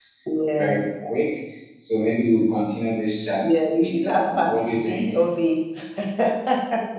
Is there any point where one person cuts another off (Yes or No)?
Yes